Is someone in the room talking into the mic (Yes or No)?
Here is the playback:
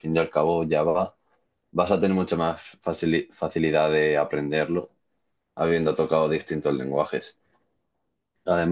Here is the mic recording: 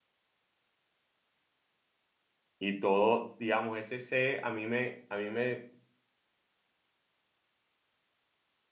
Yes